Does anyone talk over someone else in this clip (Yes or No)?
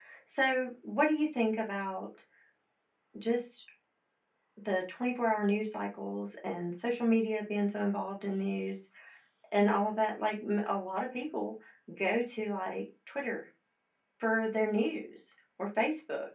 No